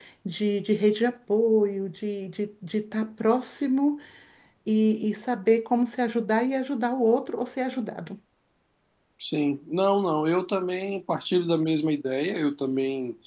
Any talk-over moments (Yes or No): No